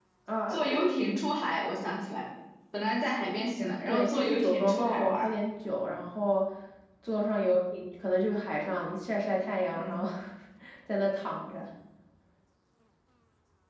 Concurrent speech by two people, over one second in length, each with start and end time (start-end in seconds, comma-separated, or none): 3.9-5.3